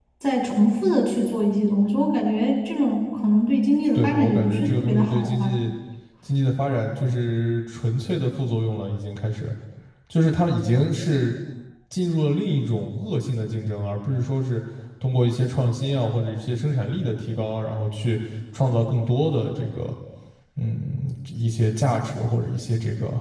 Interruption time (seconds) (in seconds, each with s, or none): 3.9 s